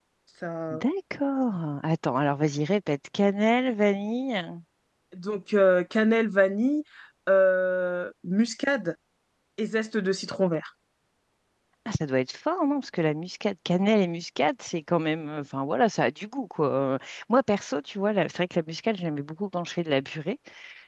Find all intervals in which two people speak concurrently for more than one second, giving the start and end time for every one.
none

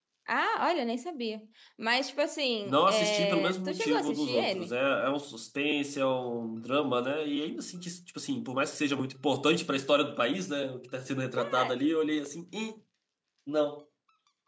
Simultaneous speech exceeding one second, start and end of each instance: 2.6-4.7

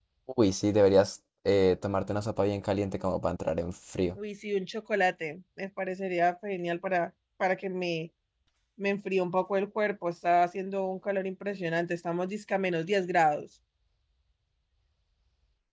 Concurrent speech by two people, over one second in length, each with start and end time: none

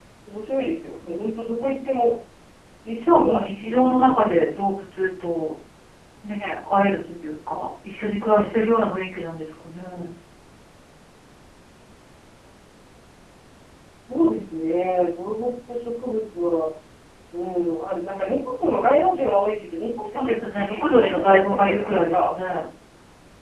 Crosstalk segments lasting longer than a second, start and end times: 3.1-4.4, 20.0-22.3

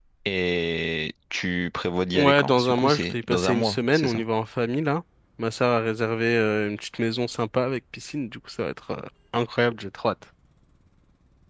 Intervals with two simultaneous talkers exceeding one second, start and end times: 2.1-4.2

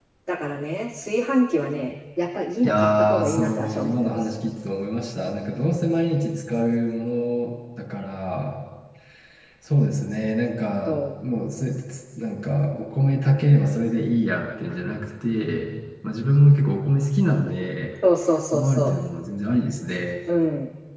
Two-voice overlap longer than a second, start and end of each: 2.6-4.2

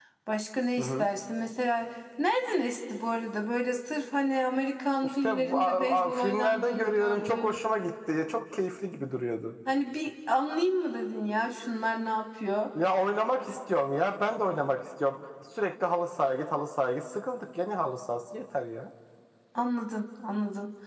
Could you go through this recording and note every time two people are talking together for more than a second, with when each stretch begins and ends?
5.0-7.6

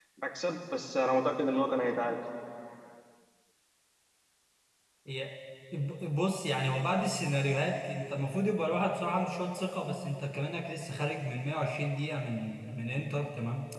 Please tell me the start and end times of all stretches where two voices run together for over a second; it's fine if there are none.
none

